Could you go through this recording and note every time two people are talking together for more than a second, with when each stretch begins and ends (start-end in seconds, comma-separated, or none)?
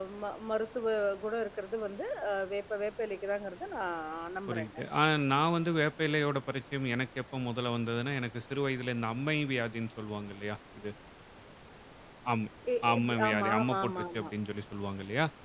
12.9-14.3